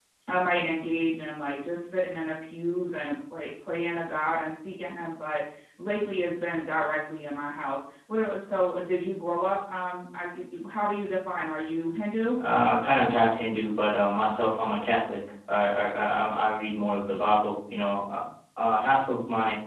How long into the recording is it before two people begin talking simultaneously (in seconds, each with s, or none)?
none